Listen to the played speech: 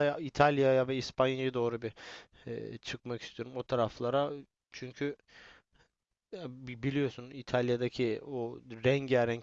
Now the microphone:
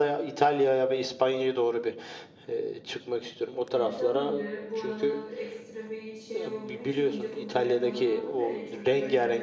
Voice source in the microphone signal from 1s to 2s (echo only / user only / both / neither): echo only